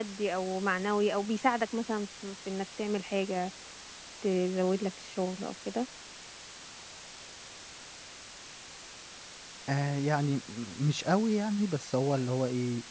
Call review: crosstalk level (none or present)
none